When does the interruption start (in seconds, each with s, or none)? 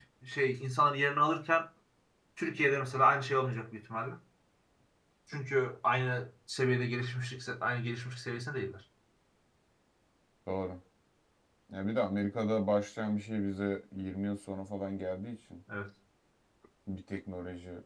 none